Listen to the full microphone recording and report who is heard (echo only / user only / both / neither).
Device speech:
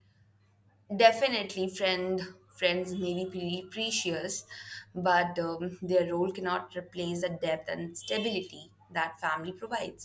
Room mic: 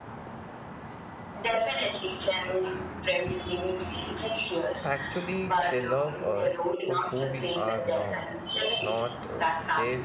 both